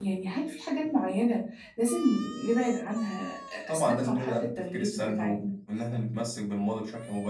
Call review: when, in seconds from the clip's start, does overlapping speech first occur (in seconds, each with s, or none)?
3.7 s